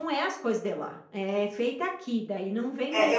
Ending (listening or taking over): taking over